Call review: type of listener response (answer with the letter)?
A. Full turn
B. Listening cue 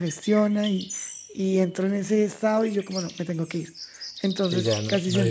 A